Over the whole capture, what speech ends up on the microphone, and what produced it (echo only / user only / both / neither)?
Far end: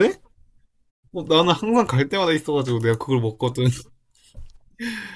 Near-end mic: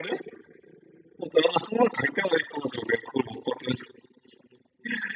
echo only